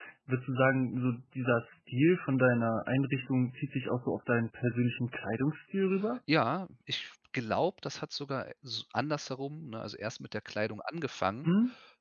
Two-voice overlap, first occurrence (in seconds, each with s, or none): none